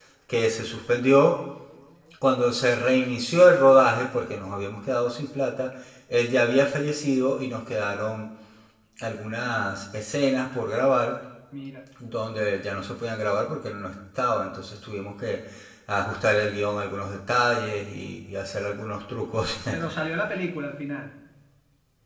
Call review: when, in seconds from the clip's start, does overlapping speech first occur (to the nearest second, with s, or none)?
none